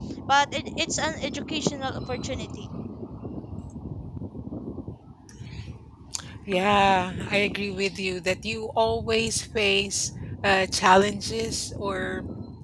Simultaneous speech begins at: none

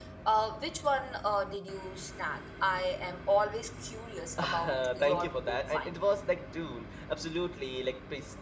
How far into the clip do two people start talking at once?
4.4 s

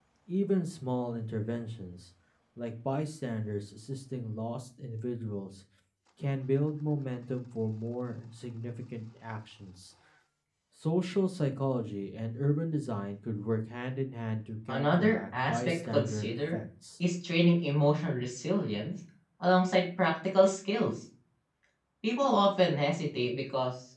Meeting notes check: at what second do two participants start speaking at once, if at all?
14.7 s

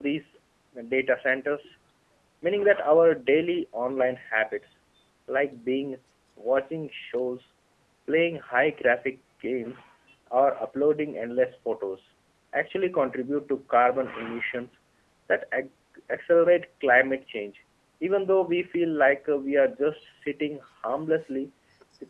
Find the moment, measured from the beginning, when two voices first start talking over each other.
none

